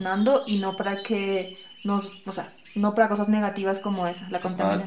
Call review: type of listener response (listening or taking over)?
taking over